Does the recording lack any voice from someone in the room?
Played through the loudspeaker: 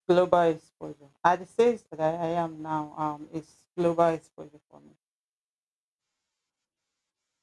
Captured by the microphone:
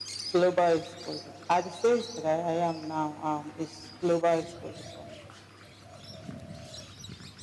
Yes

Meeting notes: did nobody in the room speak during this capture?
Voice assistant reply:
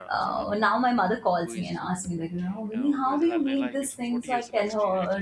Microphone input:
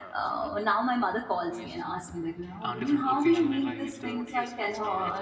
No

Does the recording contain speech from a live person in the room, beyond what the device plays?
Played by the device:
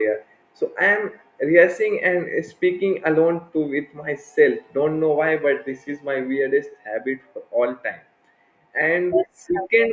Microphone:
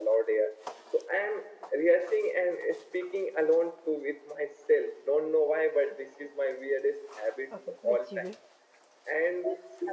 Yes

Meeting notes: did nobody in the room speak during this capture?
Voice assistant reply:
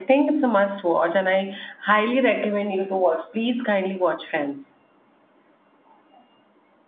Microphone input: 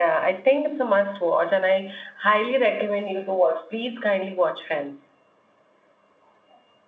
Yes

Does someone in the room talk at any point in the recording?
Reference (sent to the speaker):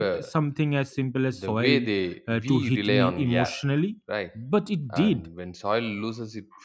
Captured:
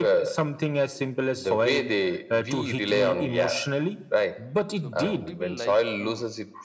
Yes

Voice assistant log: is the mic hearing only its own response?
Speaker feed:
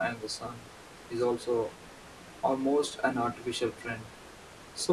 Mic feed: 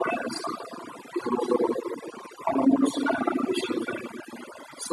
Yes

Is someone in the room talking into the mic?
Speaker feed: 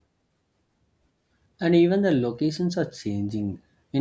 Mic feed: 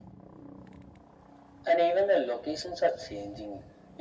No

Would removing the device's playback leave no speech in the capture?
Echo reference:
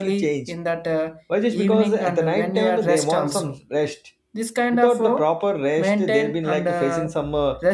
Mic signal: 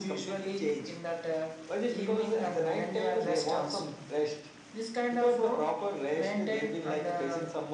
Yes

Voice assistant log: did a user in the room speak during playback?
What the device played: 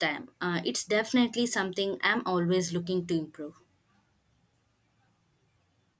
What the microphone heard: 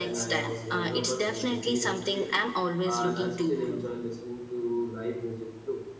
Yes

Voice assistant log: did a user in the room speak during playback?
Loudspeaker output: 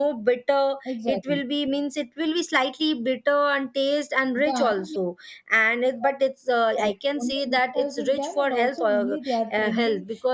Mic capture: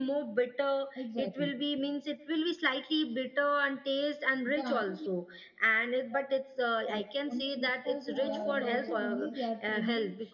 Yes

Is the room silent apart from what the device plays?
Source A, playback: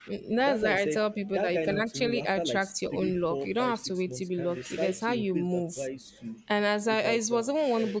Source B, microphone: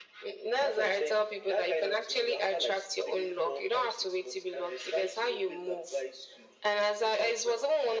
Yes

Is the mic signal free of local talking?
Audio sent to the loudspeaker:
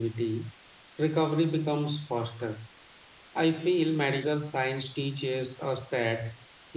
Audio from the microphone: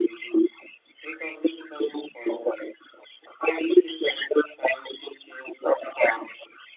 Yes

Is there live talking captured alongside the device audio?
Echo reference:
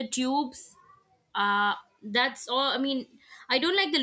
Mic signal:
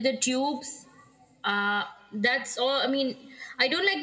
No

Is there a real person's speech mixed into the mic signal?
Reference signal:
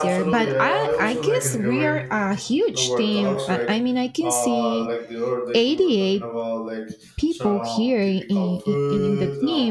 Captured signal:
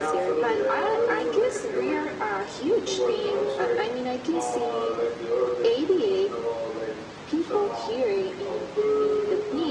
No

